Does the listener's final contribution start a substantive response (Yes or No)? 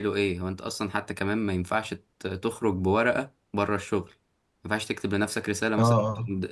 No